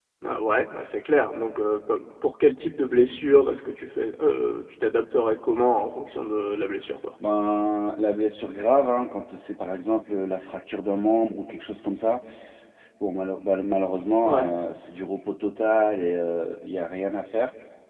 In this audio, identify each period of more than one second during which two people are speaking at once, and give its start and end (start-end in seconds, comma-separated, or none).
none